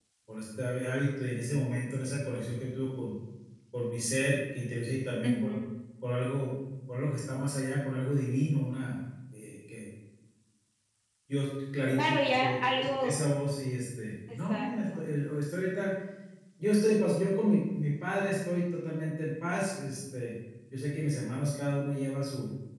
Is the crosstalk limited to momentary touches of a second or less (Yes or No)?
No